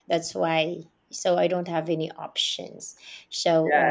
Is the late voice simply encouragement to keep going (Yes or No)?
No